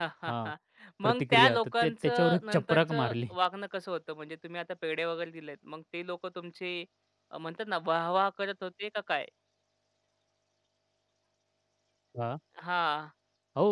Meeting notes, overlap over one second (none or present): present